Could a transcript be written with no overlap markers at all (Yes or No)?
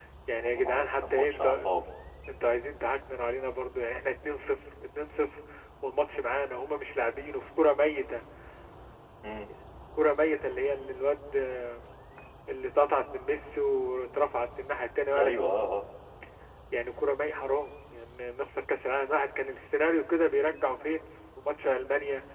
No